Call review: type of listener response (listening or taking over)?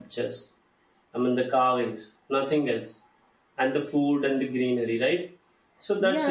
taking over